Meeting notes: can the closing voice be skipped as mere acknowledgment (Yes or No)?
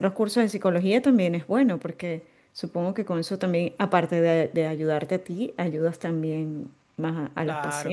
No